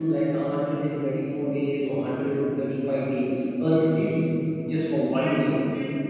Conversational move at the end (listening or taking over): taking over